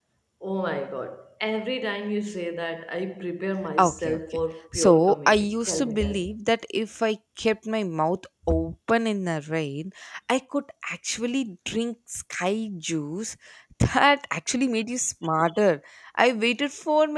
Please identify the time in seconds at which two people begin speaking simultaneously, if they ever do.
3.8 s

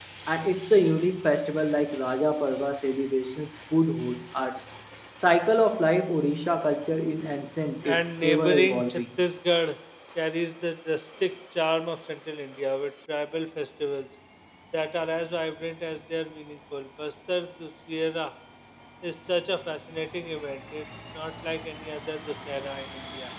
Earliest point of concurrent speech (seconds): 7.8 s

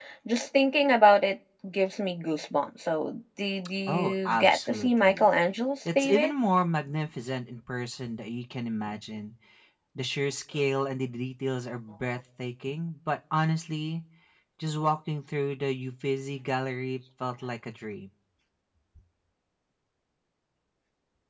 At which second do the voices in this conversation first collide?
3.9 s

